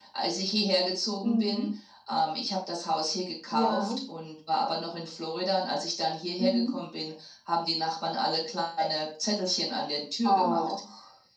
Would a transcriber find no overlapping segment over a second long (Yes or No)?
Yes